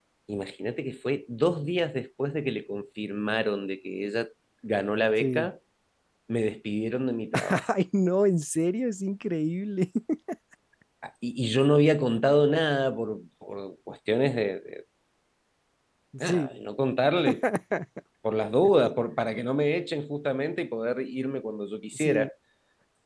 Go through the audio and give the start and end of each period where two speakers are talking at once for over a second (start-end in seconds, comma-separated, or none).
none